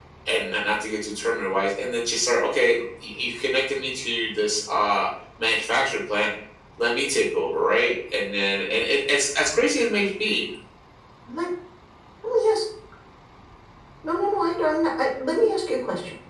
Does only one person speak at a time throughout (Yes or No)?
Yes